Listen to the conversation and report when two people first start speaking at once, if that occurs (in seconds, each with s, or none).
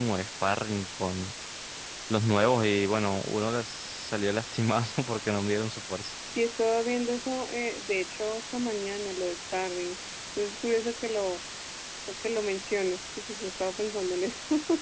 none